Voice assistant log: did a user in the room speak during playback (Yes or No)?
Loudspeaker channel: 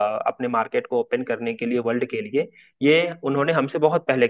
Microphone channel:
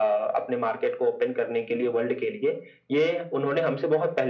No